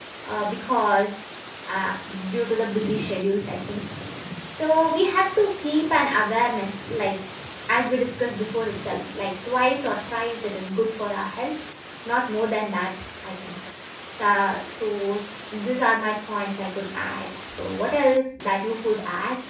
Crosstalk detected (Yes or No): No